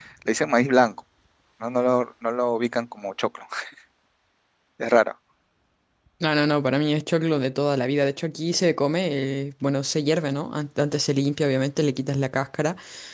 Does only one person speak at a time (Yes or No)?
Yes